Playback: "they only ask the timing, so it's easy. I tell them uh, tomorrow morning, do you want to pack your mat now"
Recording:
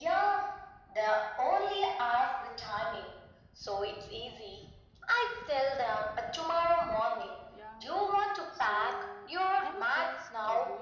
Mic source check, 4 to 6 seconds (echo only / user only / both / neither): echo only